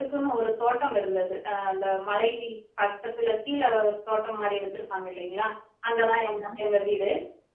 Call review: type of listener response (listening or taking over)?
listening